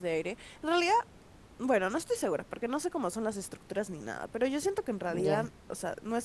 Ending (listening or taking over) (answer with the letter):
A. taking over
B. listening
B